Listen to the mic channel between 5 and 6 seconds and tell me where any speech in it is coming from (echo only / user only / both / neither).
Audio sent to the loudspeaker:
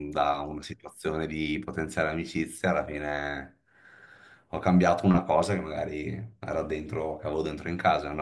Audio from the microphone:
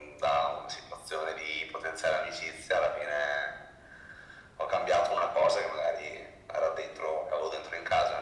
echo only